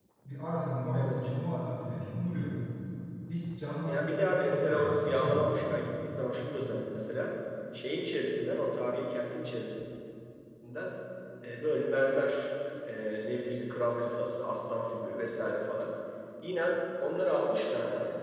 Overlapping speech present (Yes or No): Yes